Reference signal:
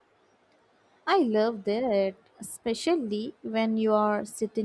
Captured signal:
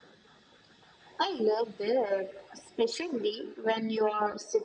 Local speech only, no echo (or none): none